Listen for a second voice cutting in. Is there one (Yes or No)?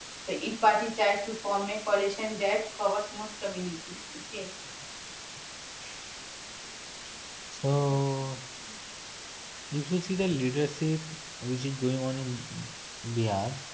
No